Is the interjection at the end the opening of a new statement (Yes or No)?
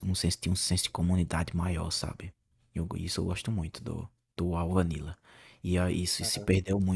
No